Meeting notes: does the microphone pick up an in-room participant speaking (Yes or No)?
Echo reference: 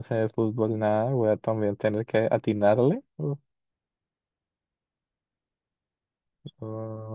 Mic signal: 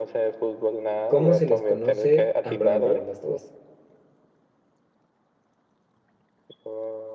Yes